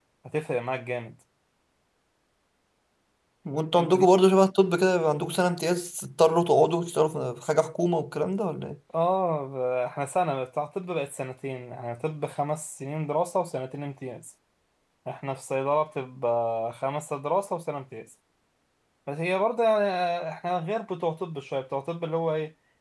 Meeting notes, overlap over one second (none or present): none